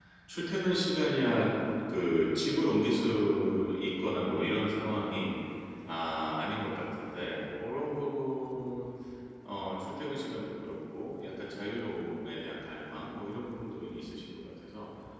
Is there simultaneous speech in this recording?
No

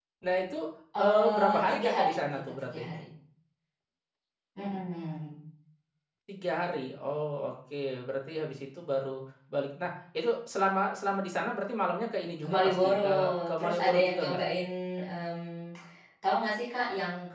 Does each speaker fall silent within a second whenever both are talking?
No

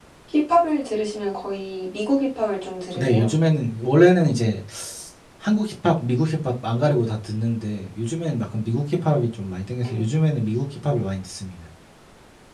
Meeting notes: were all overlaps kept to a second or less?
Yes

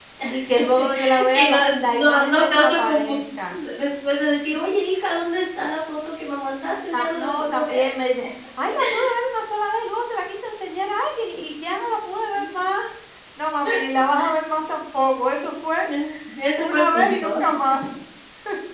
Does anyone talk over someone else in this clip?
Yes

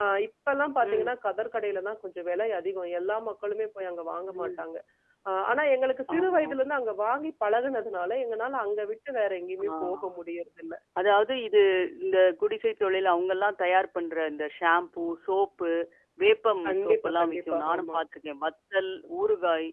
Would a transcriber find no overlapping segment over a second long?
No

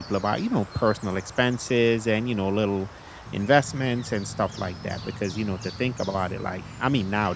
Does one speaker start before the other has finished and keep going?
No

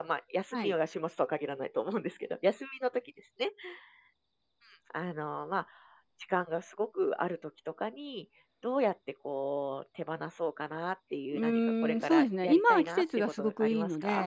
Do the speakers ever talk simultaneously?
Yes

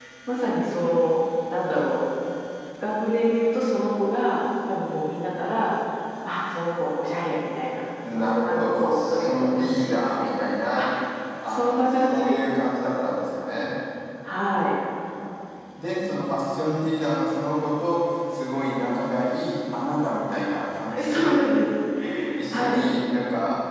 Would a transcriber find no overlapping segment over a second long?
No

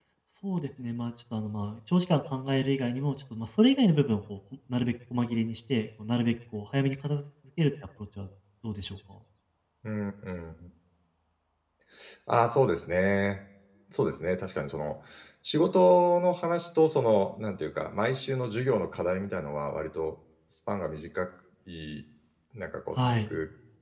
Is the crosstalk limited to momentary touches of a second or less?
Yes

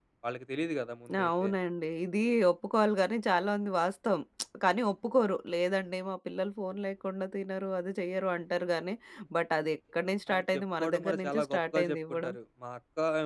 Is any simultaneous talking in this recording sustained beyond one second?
Yes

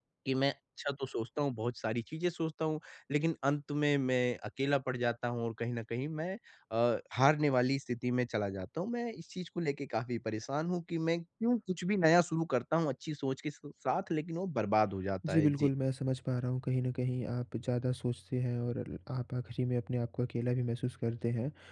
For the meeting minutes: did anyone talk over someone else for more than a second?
No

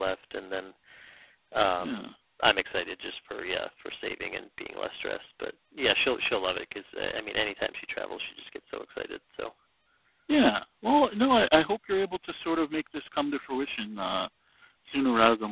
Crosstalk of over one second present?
No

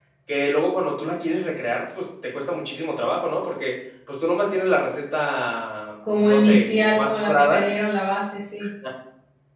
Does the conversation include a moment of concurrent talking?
Yes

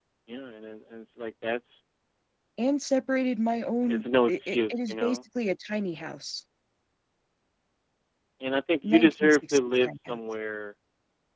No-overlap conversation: No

